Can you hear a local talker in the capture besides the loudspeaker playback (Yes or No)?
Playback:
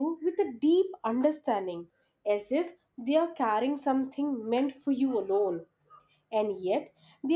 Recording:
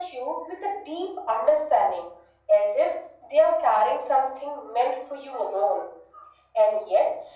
No